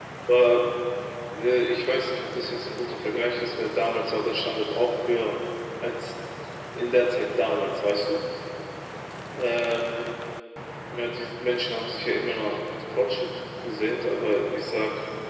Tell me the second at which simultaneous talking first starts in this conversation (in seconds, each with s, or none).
none